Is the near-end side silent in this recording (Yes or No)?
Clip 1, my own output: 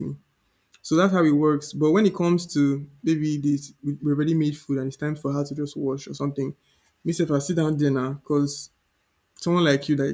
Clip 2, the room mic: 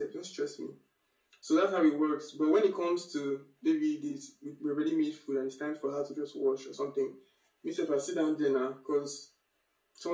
Yes